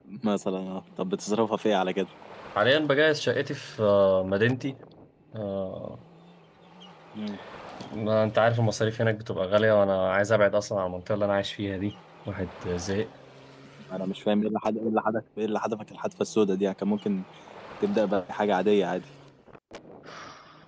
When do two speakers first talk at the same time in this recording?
none

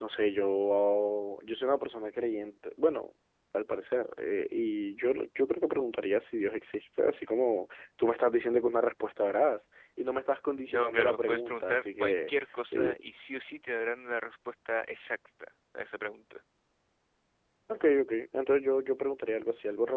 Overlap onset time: 10.7 s

